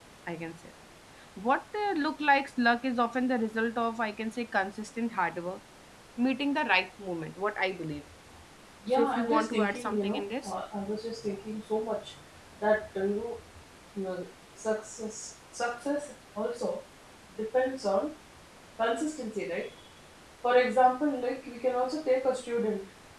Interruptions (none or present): present